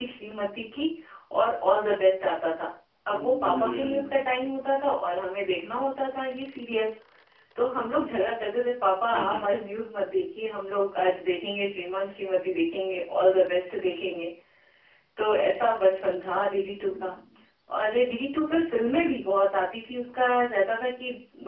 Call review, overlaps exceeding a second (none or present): present